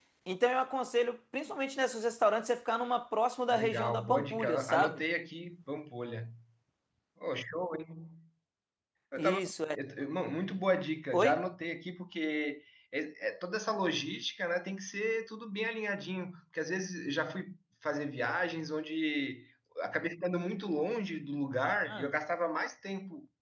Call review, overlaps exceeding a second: present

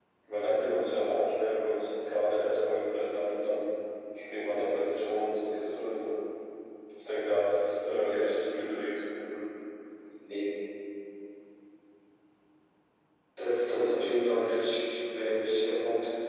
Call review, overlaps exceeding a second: none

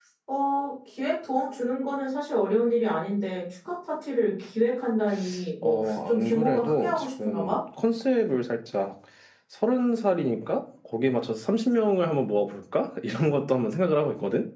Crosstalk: present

